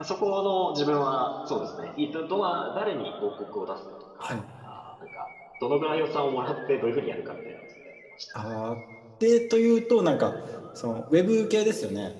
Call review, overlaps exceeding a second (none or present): none